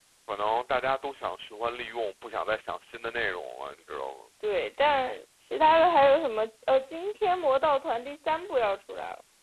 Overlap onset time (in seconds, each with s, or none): none